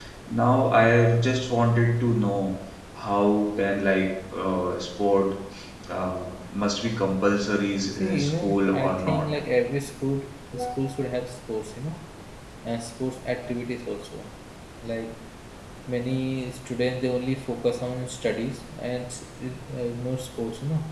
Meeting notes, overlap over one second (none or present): present